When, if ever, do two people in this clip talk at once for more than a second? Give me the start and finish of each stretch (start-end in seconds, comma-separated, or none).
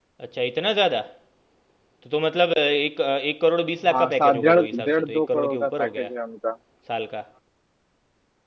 3.9-6.1